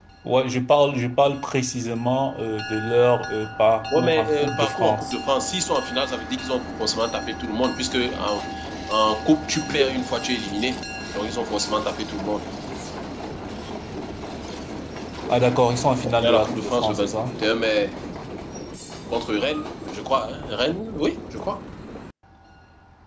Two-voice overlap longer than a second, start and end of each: 3.9-5.1, 16.0-17.4

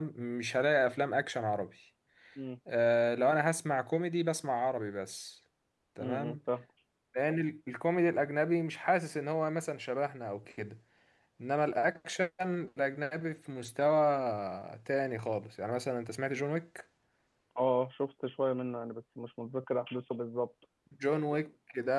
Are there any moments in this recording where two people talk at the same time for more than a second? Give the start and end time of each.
none

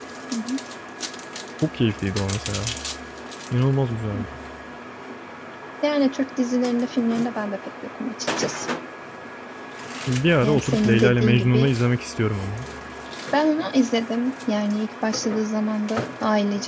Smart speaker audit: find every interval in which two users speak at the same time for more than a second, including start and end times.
10.4-11.7

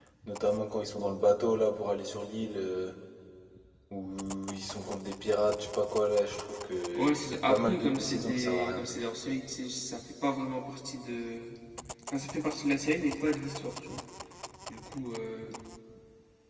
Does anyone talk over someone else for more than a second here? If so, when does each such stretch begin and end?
7.0-9.0

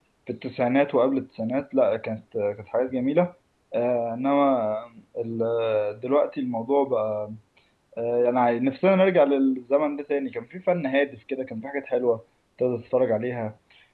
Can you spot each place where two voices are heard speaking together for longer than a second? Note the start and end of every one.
none

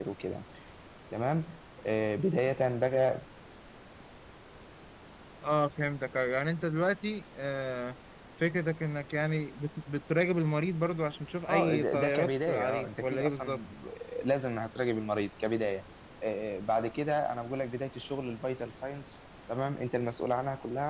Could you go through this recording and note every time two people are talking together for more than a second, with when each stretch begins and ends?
11.5-13.6

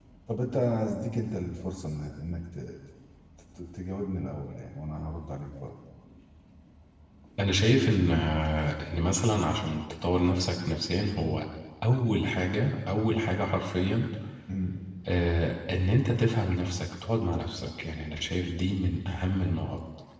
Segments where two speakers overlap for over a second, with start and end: none

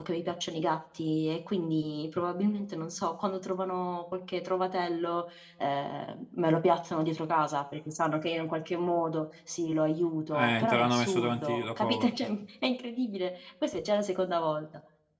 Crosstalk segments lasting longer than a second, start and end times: 10.3-12.1

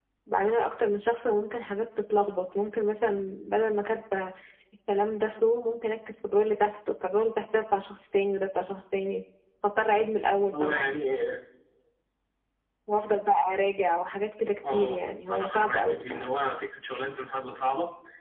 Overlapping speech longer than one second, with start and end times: 14.7-16.3

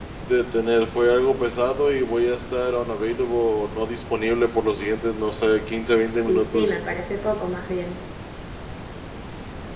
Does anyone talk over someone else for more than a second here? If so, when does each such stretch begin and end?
none

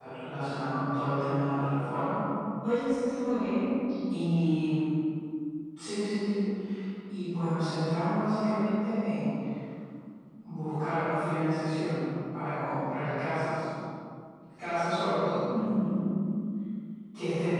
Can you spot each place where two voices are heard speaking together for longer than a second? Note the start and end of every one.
none

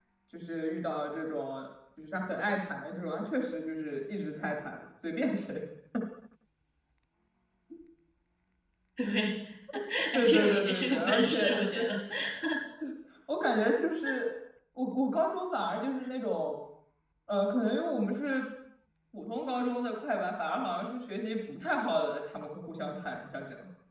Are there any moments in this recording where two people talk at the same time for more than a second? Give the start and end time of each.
10.1-11.9

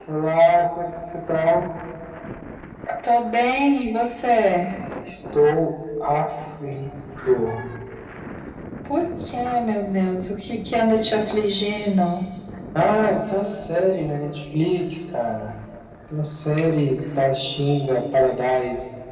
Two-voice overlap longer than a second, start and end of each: none

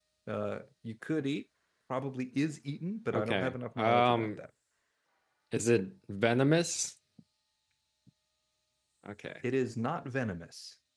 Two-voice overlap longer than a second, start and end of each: 3.1-4.4

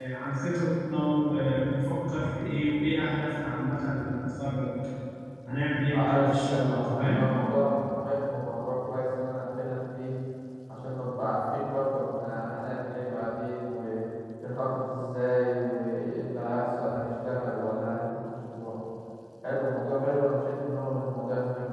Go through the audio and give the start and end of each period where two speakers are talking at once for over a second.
5.9-7.2

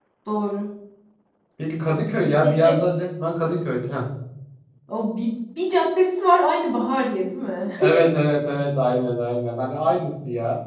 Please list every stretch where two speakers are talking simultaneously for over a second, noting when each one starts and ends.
none

